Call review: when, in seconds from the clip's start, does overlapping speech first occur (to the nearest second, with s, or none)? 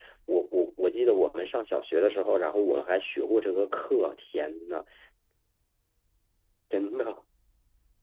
none